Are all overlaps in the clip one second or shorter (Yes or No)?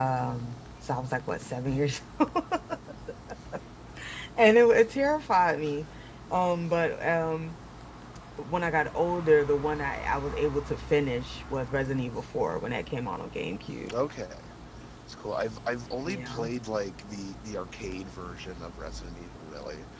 Yes